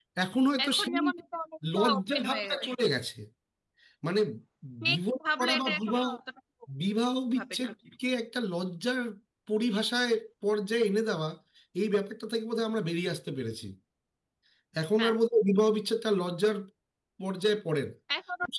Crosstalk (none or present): present